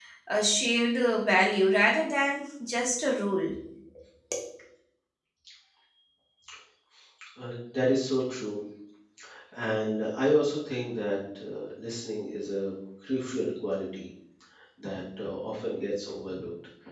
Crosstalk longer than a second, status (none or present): none